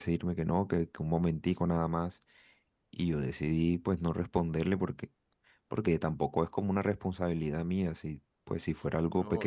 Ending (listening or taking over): taking over